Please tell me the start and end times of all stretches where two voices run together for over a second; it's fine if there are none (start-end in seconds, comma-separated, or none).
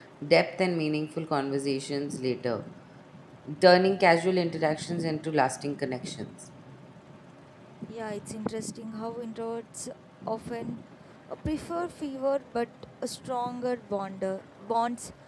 none